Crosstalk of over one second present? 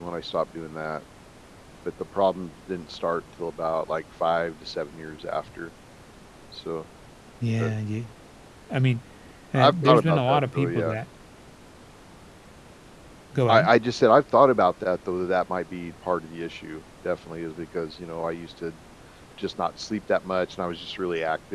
Yes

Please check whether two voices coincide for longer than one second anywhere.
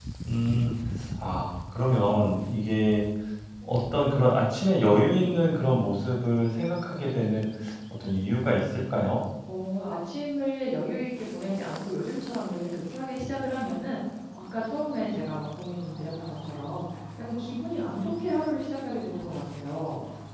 No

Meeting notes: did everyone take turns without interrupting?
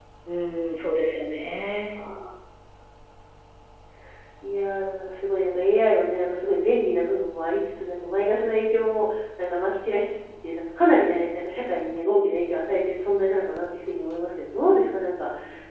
Yes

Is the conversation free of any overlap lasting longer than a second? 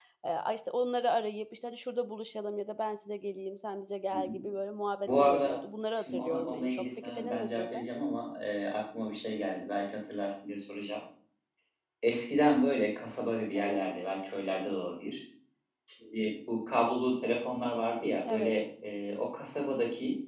No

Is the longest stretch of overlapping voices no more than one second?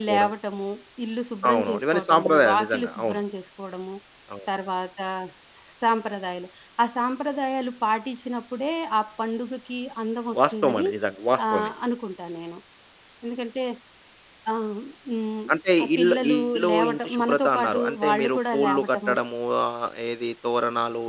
No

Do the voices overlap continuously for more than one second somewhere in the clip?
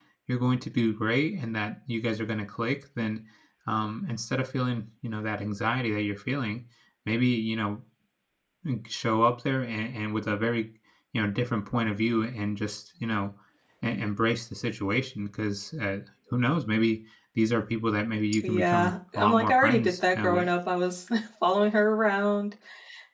Yes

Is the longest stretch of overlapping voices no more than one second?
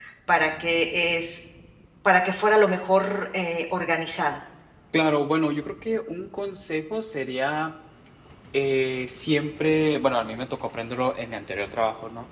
Yes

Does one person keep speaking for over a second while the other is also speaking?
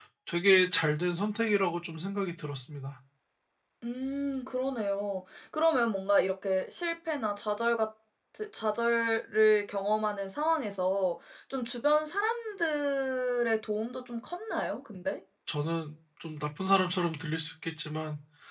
No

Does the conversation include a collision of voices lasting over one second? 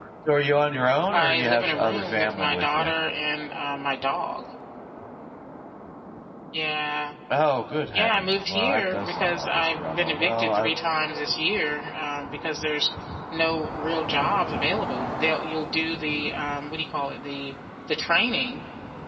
Yes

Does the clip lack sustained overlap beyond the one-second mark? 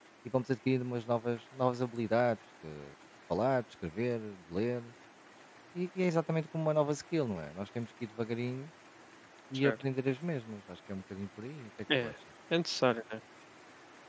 Yes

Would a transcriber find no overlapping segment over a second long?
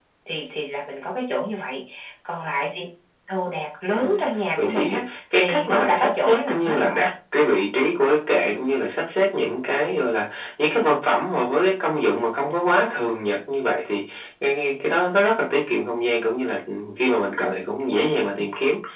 No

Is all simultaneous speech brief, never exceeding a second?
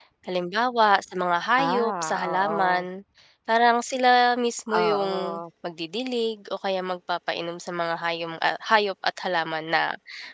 No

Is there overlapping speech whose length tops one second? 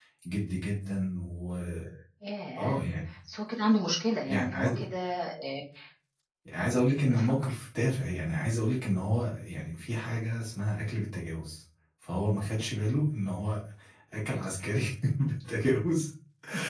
No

